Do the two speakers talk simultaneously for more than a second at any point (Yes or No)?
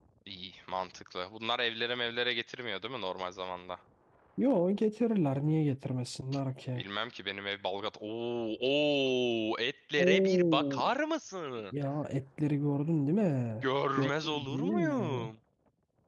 Yes